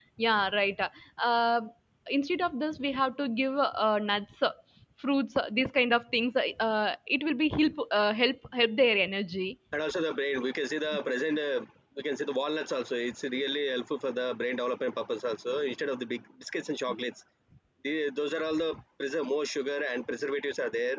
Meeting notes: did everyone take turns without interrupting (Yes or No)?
Yes